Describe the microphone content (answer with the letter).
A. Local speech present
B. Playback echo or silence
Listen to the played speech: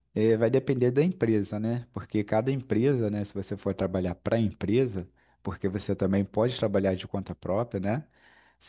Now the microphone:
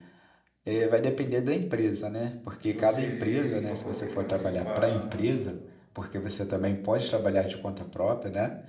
A